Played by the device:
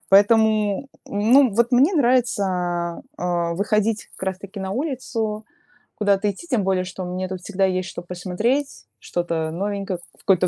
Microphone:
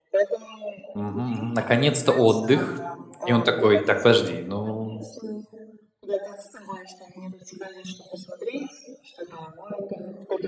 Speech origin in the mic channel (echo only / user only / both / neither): both